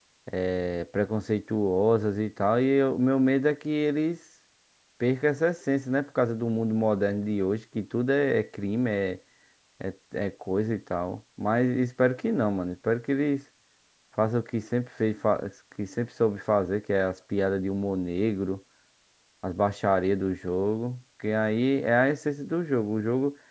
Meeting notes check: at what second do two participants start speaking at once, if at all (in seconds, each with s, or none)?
none